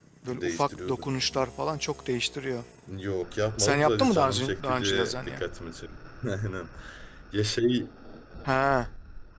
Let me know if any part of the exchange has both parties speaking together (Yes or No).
Yes